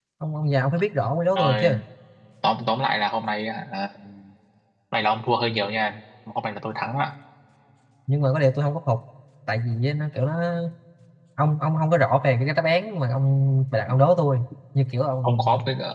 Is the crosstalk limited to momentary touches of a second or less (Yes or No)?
Yes